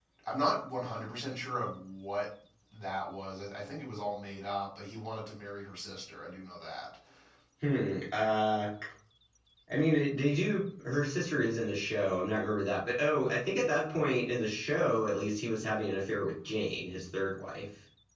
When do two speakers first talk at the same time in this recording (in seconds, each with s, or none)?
none